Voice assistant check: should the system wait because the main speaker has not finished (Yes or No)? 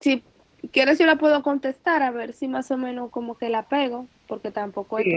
No